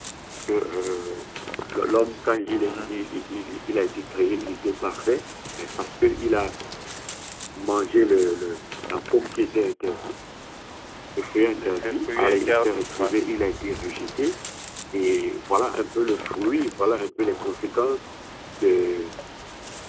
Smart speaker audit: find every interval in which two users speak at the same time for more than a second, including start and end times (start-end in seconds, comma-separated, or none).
11.6-13.1